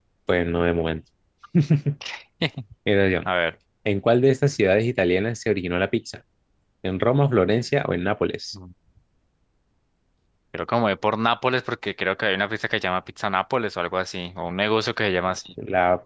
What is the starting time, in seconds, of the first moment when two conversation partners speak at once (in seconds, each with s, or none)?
none